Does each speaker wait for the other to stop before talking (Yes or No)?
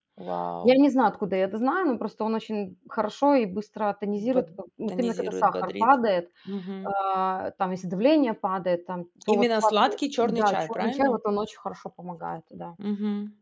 No